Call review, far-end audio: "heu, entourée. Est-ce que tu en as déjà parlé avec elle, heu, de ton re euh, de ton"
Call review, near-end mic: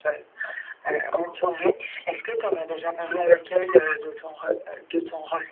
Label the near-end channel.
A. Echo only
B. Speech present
A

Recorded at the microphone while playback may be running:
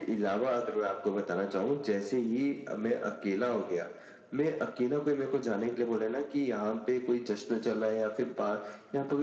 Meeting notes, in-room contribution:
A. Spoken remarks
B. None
B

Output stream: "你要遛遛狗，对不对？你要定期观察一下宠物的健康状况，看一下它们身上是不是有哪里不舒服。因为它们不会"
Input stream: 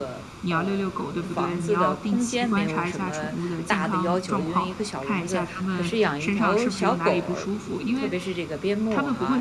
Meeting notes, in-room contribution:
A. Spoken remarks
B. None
A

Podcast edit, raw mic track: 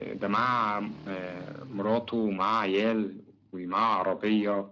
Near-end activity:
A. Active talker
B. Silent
B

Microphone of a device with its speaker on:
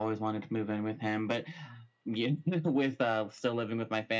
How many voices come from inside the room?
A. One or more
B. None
B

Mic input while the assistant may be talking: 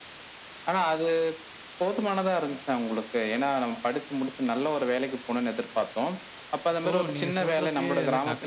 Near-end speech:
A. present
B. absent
A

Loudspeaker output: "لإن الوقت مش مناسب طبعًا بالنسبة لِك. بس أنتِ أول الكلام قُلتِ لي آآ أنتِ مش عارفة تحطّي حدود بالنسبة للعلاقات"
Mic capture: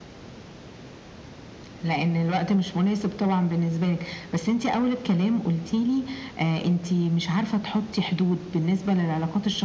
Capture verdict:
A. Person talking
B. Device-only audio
B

